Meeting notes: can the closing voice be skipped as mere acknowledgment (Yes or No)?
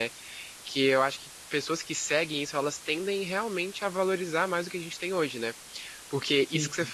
Yes